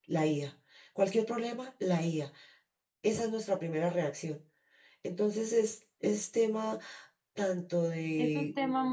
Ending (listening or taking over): taking over